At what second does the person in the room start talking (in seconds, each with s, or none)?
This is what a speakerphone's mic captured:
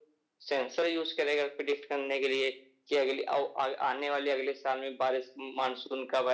none